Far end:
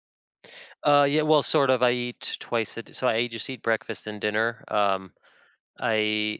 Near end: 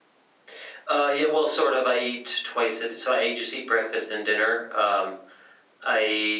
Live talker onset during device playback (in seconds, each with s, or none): none